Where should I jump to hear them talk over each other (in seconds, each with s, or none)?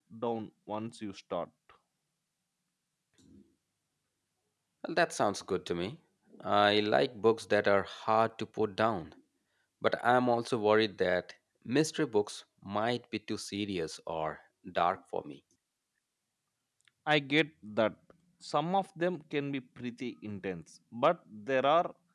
none